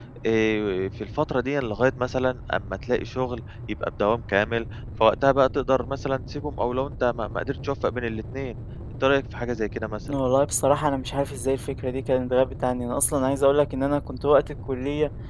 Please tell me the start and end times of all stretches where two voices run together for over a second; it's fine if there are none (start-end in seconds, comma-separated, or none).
none